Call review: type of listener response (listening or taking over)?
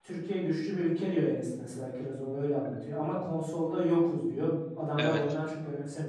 listening